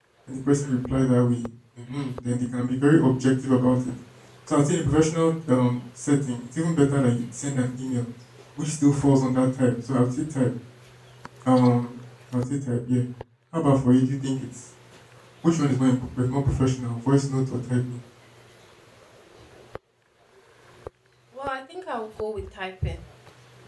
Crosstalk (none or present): none